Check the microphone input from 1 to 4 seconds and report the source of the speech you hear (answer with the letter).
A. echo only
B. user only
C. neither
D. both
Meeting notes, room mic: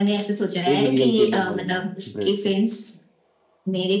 D